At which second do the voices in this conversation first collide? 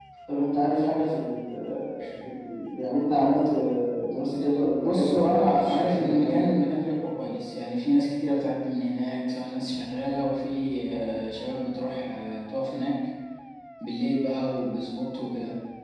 4.8 s

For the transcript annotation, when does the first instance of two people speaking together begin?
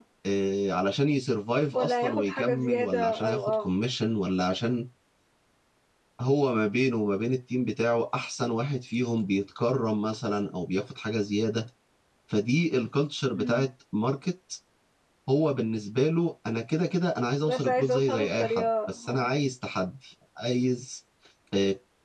1.7 s

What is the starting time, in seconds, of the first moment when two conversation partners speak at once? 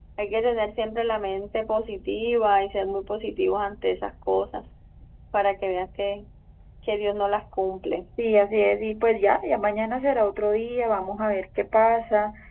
none

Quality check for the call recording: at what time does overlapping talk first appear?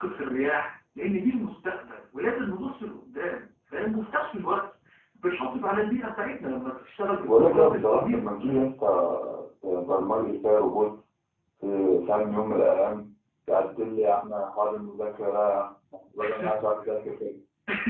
7.2 s

